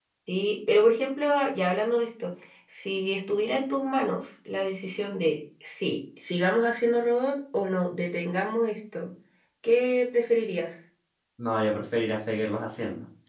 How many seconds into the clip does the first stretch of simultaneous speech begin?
none

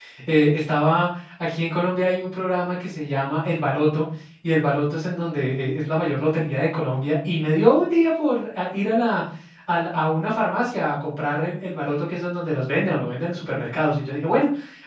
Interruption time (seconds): none

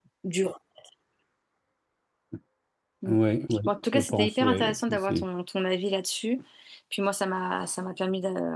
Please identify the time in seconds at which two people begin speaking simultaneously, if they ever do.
4 s

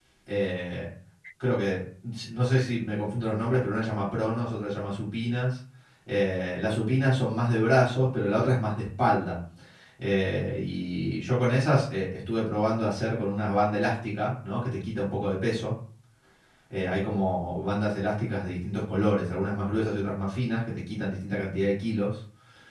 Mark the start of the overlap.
none

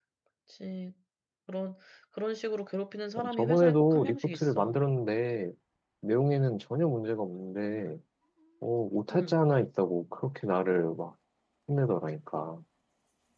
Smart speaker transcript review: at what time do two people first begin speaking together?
3 s

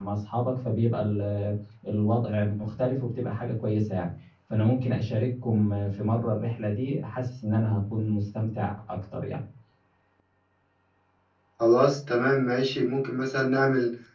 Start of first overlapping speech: none

